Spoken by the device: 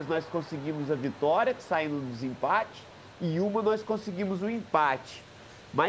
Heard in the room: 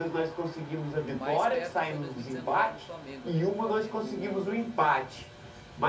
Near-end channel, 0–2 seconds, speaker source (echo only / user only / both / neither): both